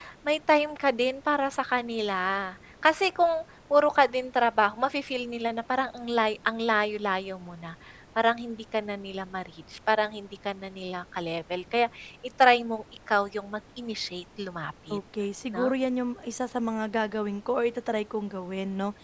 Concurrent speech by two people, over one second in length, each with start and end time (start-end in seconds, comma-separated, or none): none